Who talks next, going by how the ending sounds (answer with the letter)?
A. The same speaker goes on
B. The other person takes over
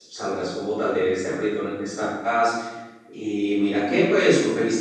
A